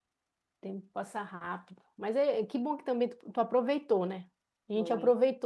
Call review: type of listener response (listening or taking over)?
listening